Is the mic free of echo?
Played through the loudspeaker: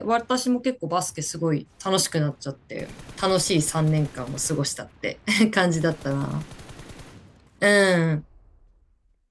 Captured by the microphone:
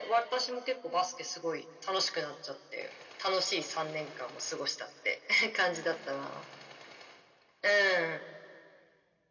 No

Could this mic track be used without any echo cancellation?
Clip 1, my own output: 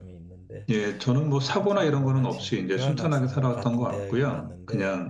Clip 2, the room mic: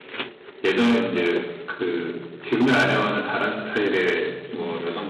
Yes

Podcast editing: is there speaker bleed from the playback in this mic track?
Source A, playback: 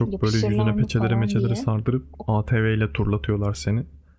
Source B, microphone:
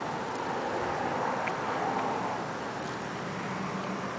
No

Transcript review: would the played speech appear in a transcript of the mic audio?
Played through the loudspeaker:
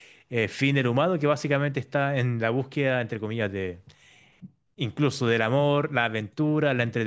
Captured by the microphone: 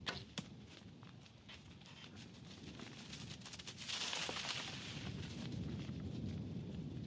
No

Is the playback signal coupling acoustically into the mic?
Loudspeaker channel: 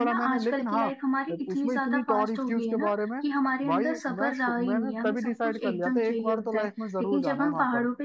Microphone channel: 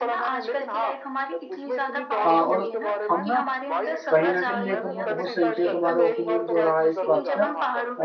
Yes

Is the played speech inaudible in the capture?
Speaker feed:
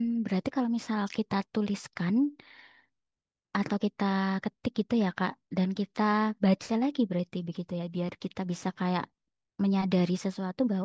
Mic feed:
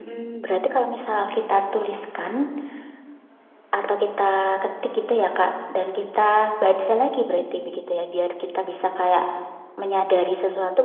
No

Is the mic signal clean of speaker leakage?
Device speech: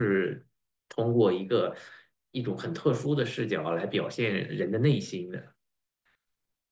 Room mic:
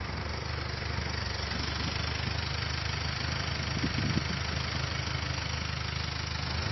Yes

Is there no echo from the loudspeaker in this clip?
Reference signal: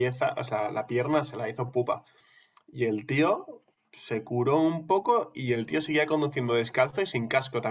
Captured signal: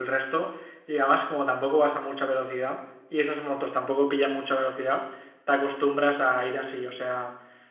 Yes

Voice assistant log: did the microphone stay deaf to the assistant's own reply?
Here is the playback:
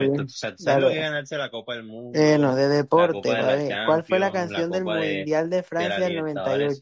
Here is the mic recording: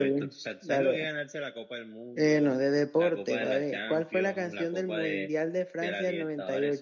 No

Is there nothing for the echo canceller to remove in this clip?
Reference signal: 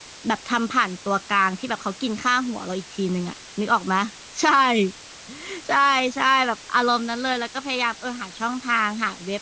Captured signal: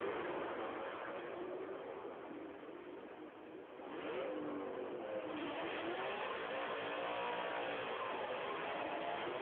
Yes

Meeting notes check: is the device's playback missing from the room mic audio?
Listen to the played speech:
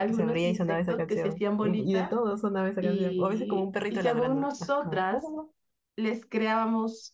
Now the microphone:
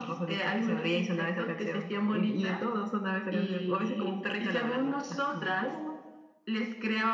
No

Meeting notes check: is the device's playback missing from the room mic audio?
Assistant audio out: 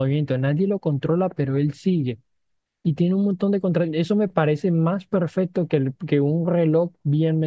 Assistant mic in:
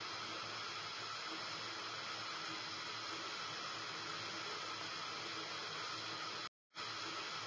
Yes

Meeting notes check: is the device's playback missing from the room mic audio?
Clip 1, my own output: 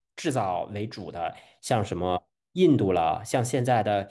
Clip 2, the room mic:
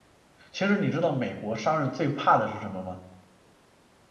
Yes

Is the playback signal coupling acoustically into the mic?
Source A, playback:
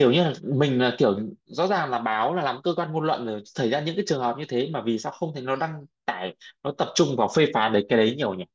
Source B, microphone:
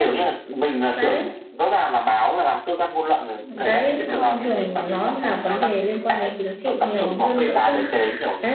Yes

